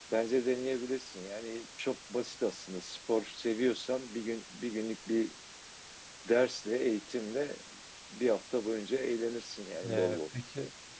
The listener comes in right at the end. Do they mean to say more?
Yes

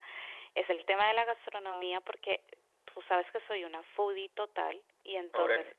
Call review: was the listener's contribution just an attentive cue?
Yes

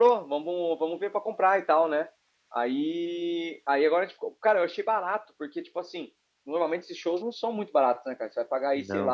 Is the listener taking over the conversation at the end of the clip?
No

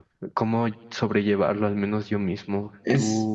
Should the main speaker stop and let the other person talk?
No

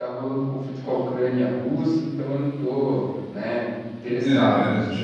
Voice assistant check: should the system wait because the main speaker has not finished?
No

